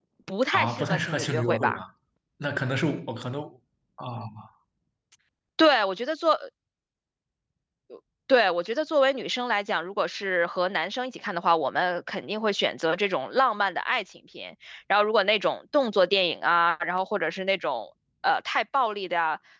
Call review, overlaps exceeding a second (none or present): present